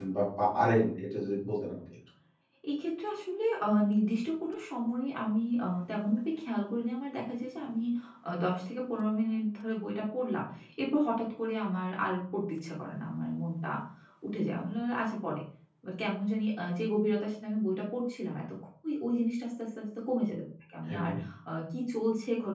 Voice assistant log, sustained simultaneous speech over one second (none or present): none